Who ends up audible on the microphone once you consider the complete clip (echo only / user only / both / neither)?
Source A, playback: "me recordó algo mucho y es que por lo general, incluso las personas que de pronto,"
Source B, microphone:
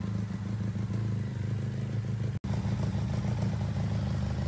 neither